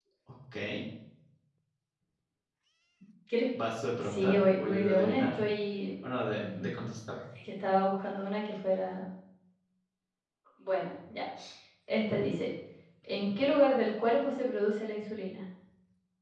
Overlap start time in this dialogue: 4 s

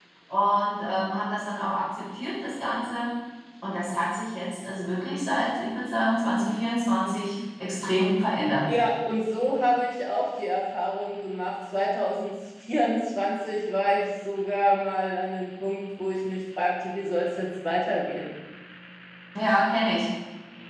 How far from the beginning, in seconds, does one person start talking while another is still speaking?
none

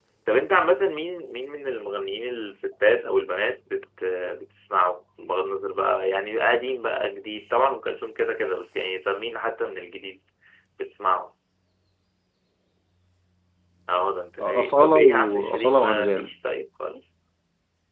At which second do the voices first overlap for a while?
14 s

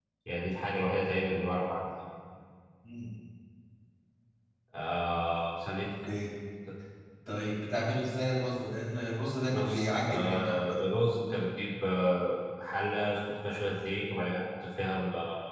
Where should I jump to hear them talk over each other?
9 s

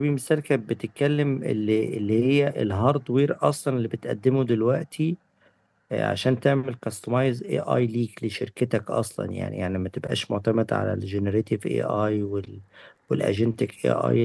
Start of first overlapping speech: none

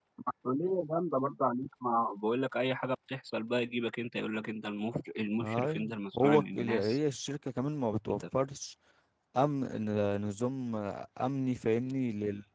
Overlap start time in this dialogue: 5 s

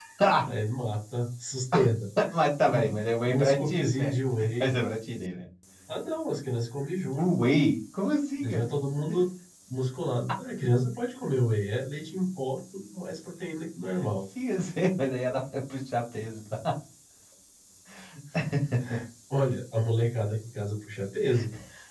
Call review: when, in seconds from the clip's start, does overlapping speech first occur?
3 s

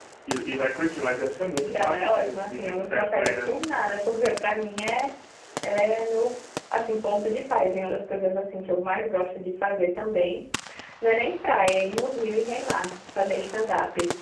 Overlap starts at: 2 s

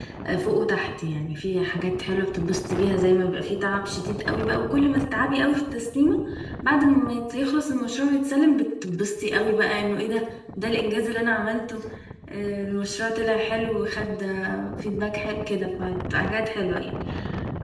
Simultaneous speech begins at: none

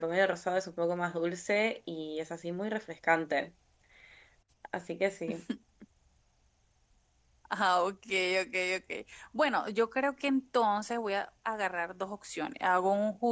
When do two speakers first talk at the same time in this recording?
none

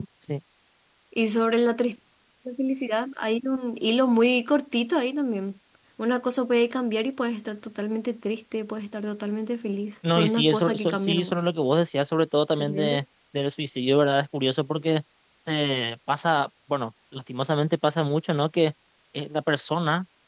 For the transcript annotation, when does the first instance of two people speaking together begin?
10 s

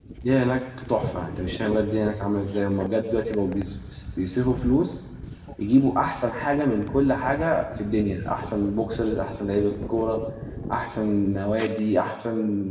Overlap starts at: none

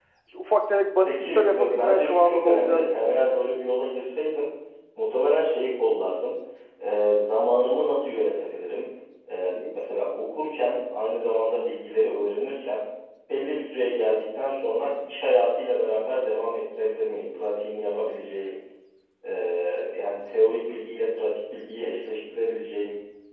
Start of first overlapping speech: 1 s

